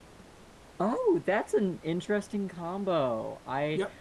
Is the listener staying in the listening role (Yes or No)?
Yes